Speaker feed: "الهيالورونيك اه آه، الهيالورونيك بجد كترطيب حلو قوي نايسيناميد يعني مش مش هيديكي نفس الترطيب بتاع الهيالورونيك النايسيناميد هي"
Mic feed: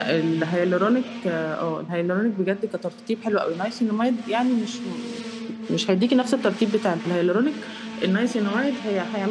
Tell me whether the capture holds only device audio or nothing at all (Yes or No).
Yes